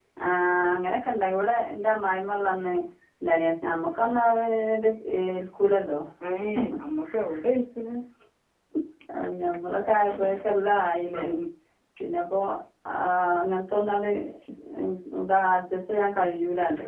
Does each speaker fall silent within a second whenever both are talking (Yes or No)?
Yes